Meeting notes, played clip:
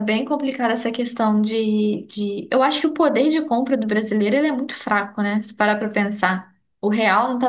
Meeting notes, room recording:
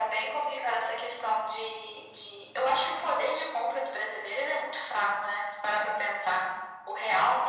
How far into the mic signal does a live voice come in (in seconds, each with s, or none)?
none